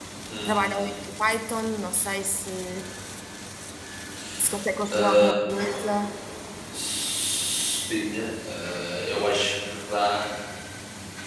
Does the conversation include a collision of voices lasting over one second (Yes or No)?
No